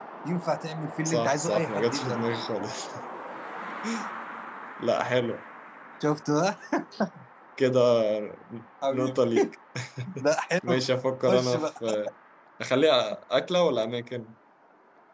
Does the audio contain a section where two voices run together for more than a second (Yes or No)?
Yes